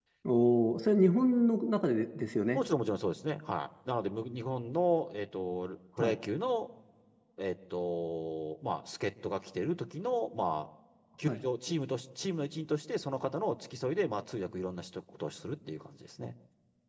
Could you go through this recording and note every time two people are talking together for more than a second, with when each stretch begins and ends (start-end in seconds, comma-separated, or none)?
none